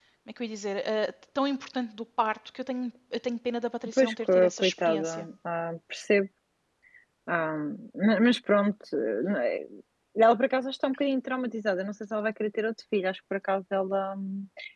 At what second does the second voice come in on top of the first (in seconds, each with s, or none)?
4.0 s